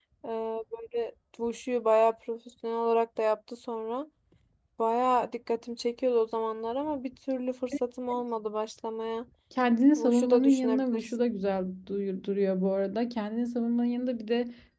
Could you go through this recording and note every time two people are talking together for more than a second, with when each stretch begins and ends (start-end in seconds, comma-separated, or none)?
9.9-11.3